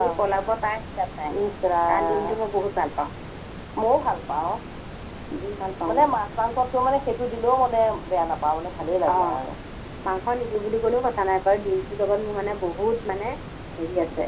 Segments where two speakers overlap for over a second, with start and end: none

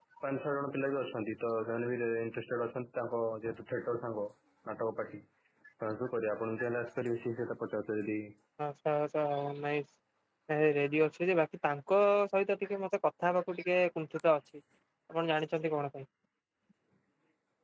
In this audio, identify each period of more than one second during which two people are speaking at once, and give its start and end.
none

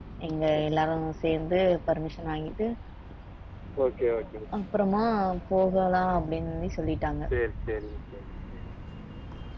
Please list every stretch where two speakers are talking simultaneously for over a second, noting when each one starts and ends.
none

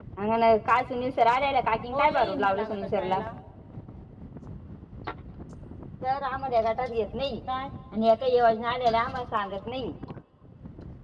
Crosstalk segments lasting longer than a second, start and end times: 1.9-3.2

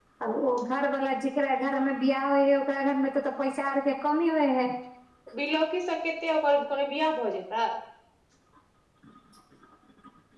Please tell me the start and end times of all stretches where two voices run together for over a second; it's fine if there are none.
none

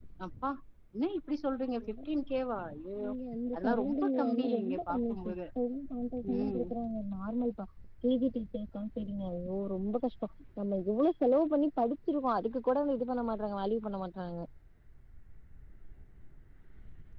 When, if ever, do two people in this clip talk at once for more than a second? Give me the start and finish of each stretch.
3.5-5.3

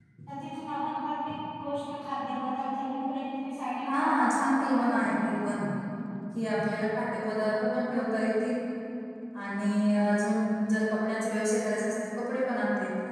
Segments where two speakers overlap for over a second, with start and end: 3.9-5.3

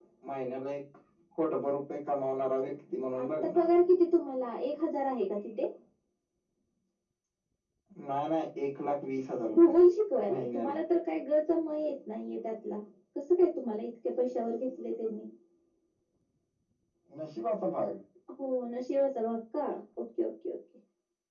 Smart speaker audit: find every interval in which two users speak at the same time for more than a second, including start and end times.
none

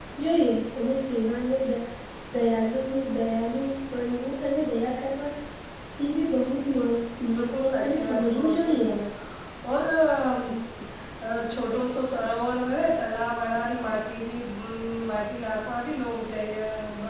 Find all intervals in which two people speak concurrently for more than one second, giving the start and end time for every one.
7.3-8.9

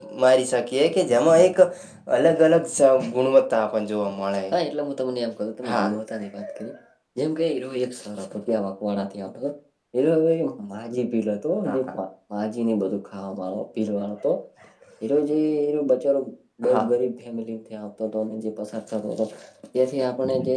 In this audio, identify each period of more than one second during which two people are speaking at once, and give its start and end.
none

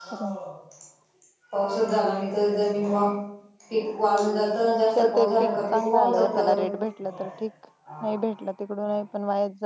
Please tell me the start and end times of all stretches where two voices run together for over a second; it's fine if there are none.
5.0-6.3

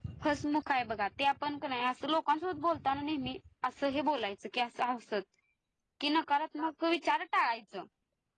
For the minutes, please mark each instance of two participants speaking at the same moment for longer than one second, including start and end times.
none

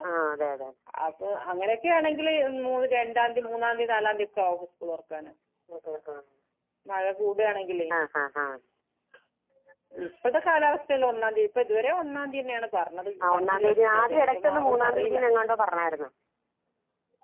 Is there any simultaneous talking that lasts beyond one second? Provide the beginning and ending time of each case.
13.2-15.2

